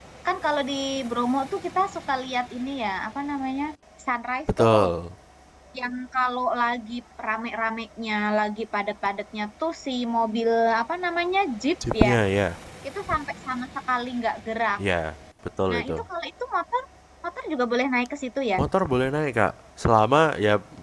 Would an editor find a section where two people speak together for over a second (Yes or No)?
No